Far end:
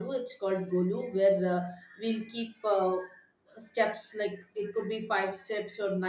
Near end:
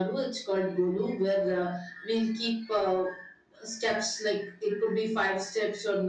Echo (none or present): present